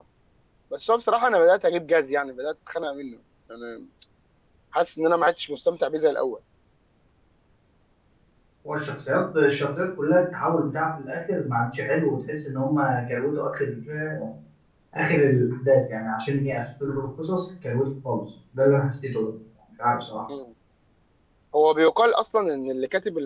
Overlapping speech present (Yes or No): No